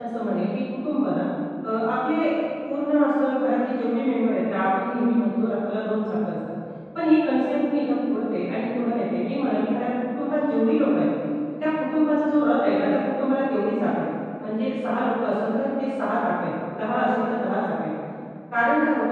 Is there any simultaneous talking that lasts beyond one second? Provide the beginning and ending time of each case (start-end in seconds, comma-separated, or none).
none